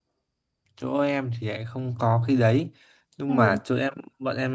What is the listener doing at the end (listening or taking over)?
listening